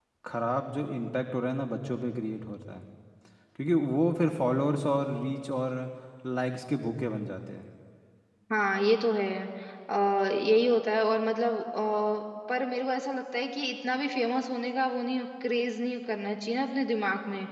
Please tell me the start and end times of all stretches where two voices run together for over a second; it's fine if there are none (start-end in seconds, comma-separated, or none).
none